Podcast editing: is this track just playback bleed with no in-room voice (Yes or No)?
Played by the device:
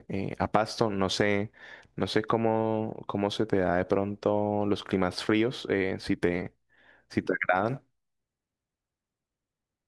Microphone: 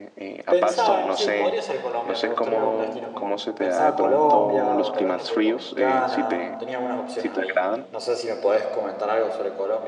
No